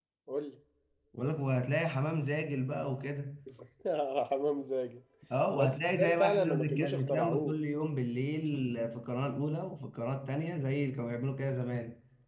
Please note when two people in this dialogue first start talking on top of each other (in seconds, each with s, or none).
5.6 s